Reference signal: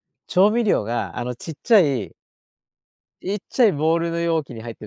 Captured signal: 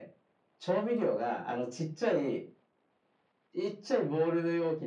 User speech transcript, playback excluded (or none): none